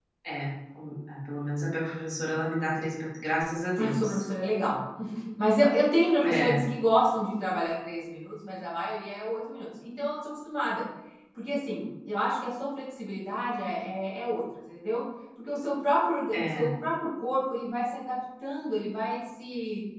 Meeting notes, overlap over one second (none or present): none